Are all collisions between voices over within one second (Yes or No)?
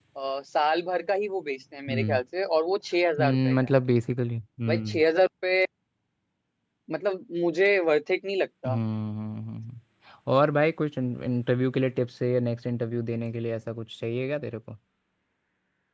Yes